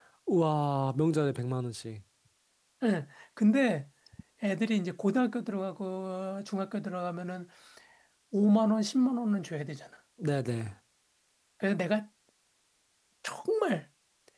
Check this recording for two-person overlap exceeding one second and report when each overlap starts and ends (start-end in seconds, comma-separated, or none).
none